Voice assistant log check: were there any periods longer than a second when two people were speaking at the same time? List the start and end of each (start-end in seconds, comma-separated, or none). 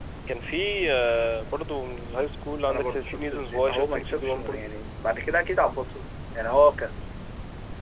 2.7-4.7